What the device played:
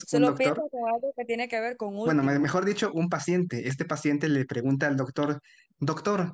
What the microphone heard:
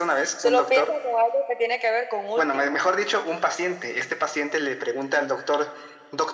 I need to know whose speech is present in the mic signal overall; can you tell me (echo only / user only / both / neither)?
echo only